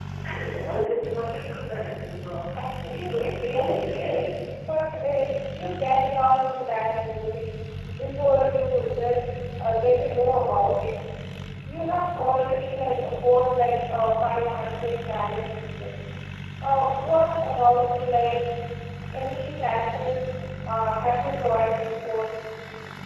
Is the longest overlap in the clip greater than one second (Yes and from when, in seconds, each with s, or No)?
Yes, from 2.9 s